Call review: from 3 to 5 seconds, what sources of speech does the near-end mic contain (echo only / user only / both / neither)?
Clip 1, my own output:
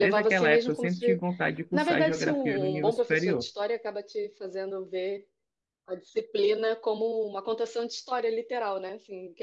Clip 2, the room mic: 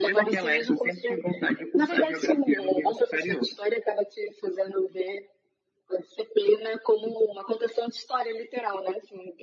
echo only